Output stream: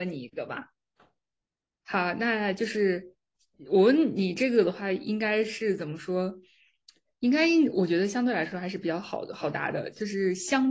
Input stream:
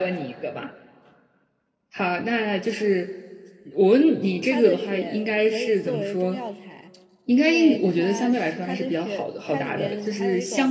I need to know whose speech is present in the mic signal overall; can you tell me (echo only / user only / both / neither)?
both